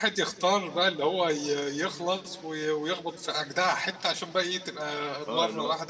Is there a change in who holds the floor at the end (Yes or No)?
Yes